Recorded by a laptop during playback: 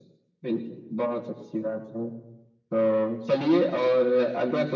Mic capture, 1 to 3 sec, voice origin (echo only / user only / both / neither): echo only